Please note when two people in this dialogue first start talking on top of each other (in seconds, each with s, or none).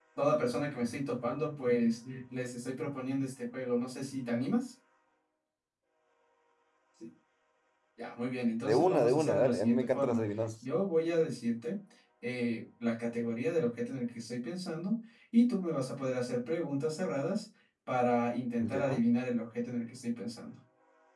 8.6 s